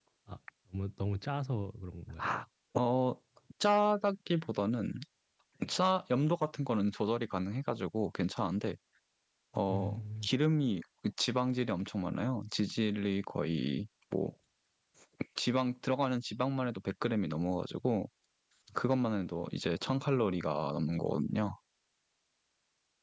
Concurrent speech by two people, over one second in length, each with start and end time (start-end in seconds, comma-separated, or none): none